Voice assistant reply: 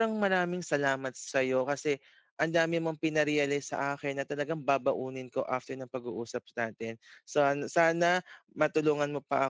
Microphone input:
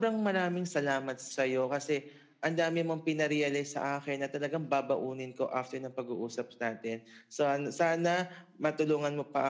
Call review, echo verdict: present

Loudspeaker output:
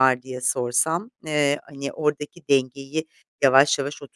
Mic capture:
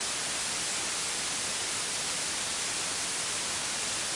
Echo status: none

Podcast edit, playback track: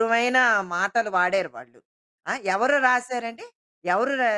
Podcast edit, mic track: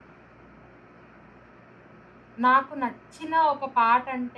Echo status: none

